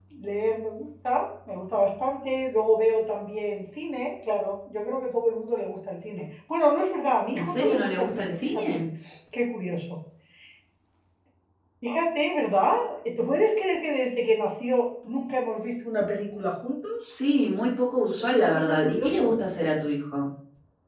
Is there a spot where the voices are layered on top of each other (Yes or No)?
Yes